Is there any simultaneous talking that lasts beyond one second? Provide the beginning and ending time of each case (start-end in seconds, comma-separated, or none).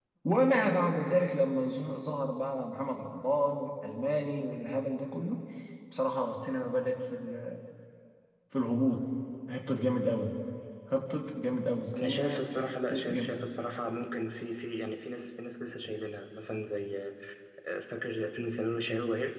11.9-13.4